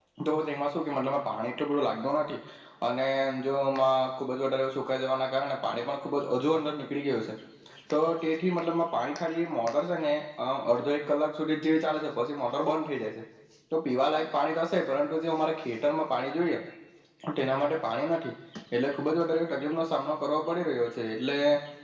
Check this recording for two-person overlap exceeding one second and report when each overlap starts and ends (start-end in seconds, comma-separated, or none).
none